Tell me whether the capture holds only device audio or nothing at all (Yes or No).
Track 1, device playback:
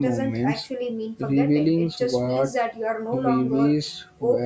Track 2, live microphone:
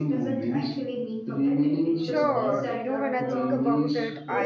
No